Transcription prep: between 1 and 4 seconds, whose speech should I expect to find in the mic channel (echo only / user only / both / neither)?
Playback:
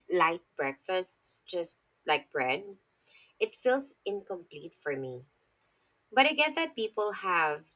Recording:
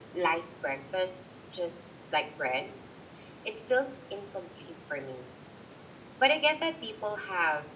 echo only